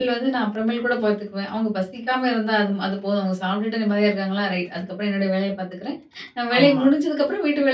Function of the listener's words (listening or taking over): listening